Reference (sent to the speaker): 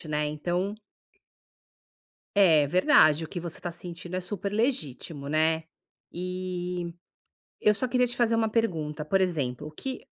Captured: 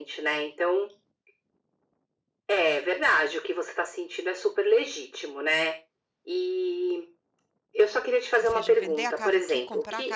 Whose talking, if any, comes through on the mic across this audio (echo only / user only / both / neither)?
both